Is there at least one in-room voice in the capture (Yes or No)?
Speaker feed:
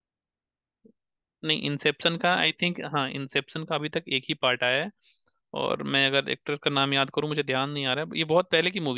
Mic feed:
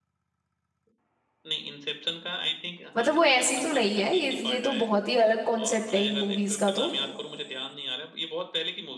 Yes